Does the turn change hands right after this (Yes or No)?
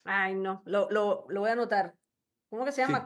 Yes